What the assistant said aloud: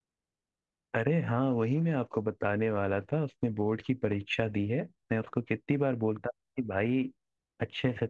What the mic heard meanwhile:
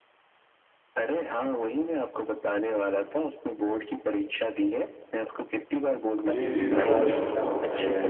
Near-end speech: present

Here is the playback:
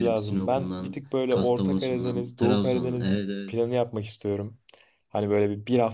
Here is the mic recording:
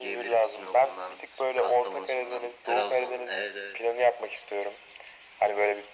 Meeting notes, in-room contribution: none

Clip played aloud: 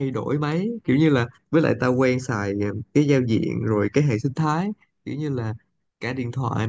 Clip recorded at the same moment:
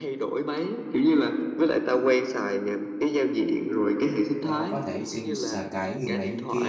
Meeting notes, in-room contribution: present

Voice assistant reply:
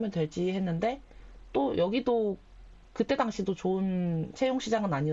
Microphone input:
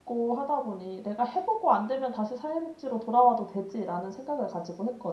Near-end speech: present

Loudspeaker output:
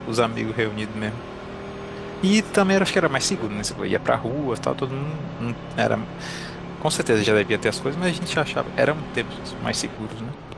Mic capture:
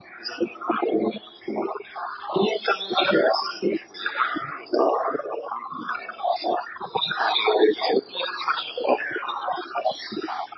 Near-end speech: none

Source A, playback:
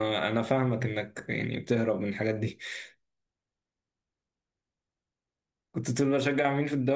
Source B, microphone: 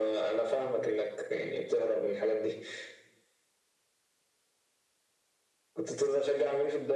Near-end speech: none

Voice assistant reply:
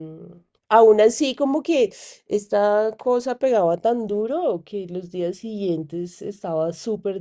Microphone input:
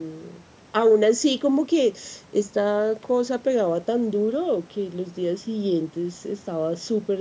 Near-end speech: none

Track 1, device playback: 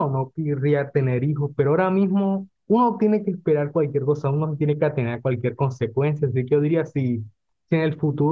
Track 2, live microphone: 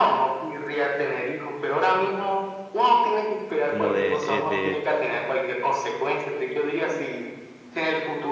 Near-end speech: present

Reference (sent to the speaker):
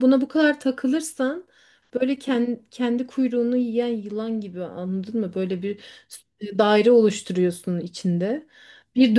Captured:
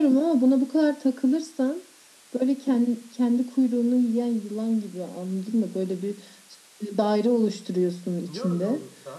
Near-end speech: present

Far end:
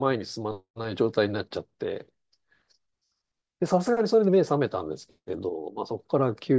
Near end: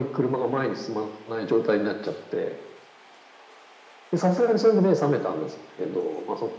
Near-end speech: none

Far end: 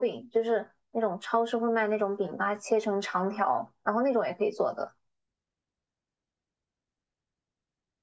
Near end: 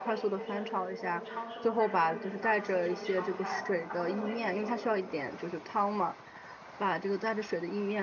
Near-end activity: present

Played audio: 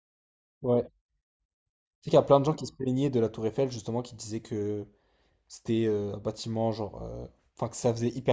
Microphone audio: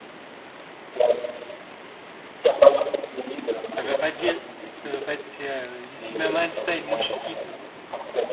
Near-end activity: present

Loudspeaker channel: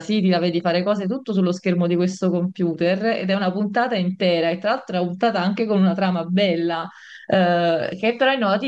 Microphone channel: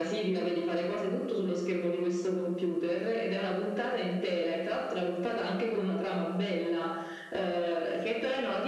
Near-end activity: none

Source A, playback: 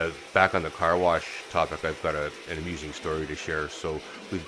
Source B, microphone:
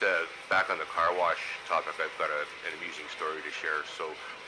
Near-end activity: none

